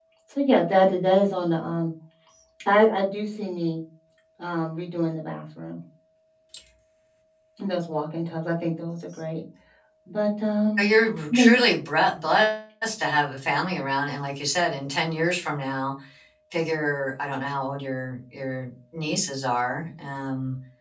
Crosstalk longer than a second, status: none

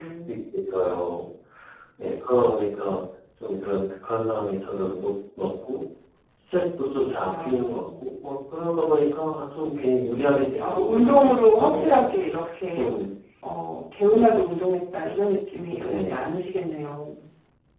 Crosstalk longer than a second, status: present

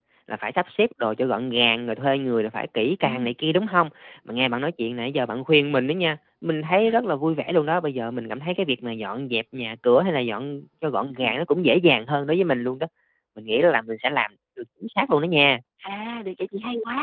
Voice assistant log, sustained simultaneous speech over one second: none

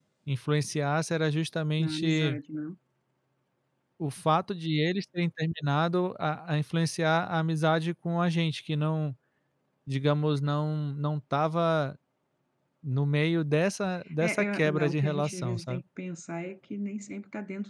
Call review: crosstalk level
present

